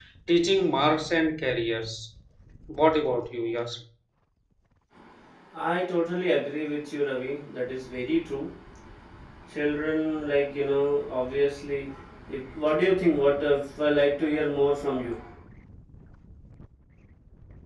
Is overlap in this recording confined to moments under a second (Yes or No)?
Yes